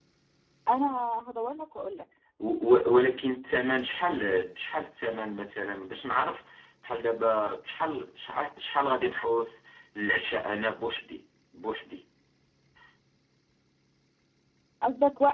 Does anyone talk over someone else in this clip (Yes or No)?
No